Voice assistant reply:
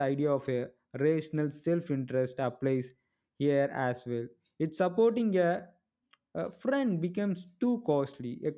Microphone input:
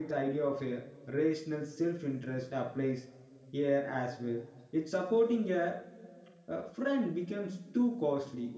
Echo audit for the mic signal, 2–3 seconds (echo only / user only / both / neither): echo only